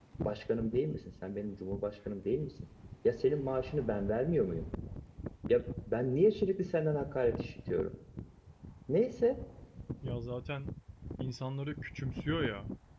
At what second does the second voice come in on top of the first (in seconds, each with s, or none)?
none